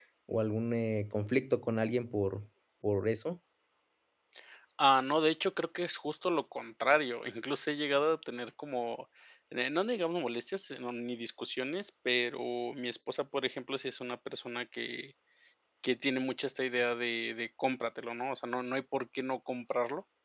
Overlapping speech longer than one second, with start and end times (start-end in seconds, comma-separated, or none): none